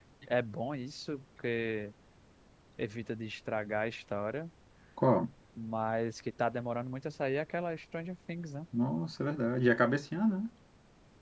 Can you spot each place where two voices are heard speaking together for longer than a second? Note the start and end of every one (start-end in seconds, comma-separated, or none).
none